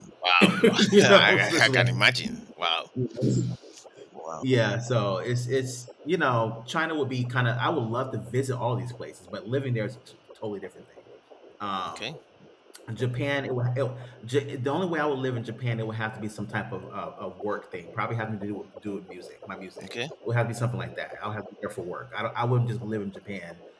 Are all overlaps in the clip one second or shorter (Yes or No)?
No